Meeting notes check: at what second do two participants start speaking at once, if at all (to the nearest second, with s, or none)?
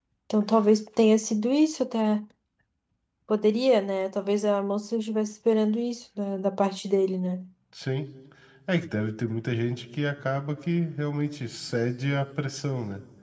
none